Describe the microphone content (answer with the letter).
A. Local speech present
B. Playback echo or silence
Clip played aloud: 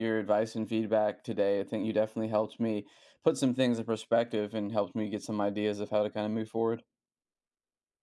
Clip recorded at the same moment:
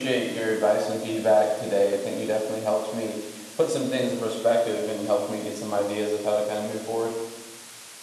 B